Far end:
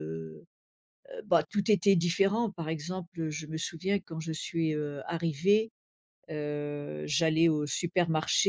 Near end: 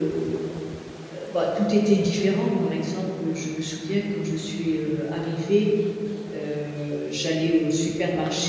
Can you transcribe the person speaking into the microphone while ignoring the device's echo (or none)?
none